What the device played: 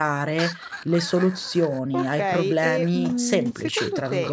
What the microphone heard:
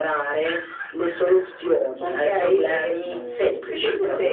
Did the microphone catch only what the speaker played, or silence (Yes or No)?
Yes